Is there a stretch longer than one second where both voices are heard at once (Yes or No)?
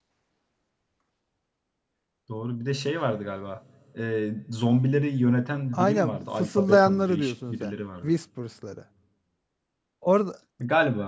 Yes